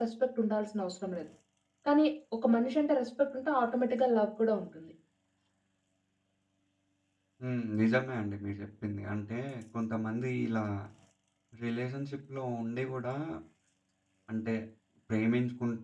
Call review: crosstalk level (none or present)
none